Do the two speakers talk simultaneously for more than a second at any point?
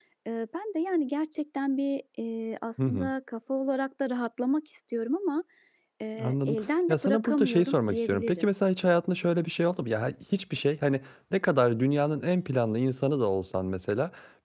Yes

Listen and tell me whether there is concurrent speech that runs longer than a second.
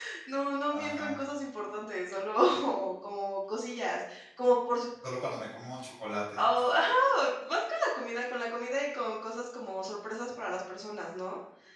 No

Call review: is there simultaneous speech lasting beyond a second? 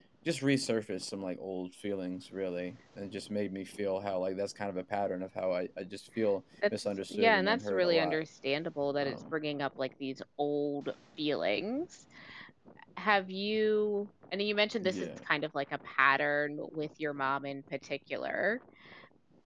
Yes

